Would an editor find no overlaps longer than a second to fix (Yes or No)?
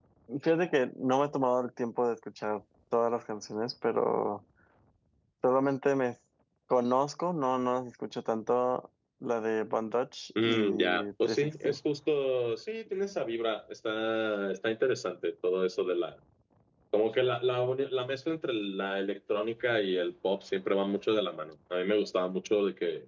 No